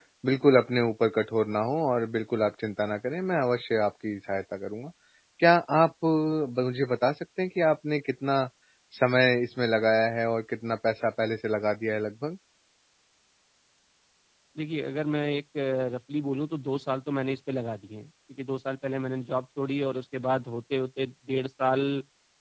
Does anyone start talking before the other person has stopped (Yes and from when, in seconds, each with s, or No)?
No